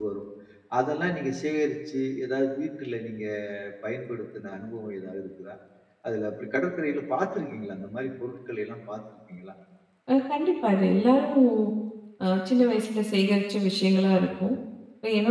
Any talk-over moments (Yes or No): No